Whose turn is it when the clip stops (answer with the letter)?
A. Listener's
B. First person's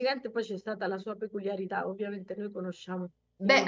A